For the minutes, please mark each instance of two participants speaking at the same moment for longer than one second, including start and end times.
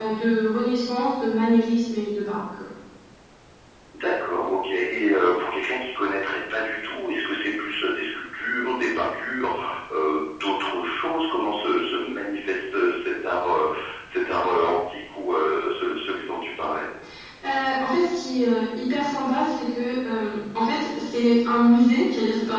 none

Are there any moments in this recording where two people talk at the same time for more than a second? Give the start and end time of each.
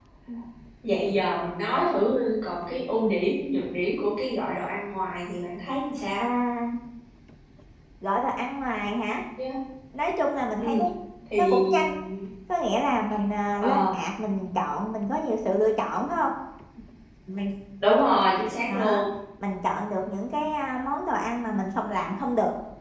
none

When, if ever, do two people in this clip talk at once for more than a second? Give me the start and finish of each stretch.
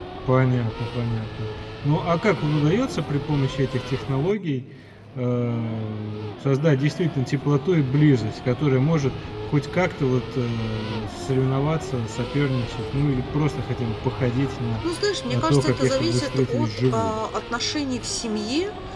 15.3-17.2

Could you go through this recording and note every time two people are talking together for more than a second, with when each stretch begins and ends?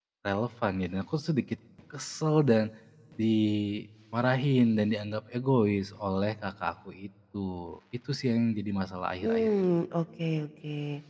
none

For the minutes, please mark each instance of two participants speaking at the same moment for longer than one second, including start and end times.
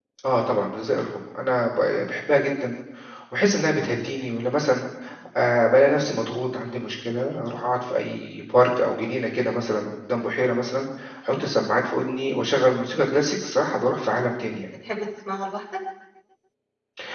none

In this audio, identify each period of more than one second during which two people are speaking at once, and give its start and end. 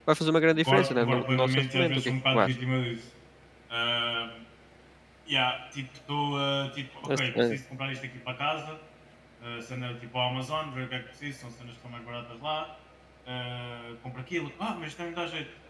0.5-2.5

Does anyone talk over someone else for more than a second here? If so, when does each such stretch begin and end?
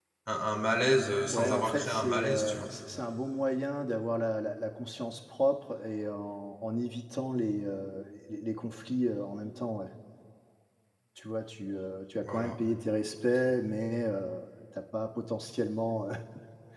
1.3-2.7

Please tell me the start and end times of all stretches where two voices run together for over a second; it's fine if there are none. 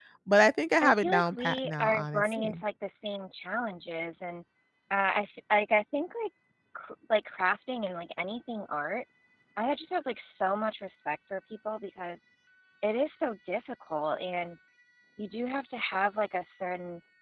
0.8-2.6

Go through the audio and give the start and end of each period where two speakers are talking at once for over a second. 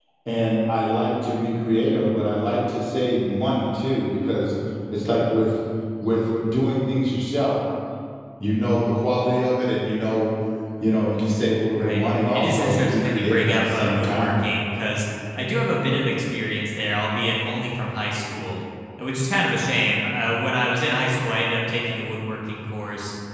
11.8-14.4

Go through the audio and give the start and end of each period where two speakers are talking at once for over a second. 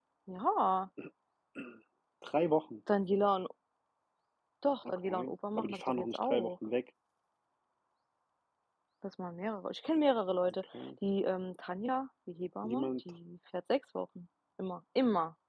4.8-6.6

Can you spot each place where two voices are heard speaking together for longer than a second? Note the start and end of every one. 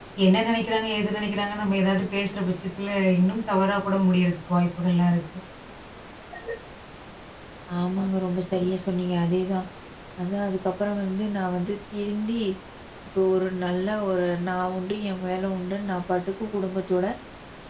none

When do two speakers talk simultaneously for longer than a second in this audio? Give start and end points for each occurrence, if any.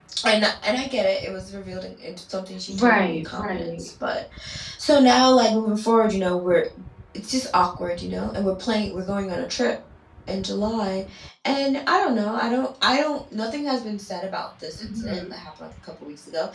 2.7-3.9

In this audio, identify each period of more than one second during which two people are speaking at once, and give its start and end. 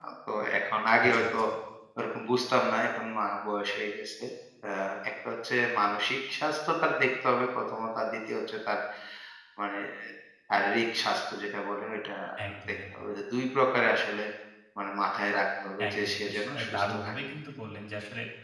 15.9-17.1

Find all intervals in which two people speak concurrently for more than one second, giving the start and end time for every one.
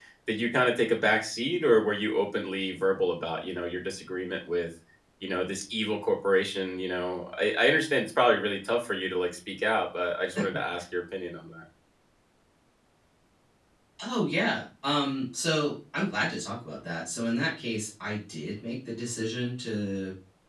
none

